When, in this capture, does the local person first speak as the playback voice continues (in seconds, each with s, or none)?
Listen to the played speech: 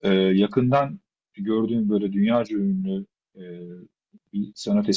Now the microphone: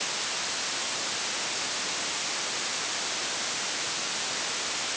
none